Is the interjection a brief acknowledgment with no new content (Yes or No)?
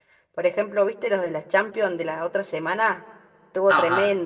No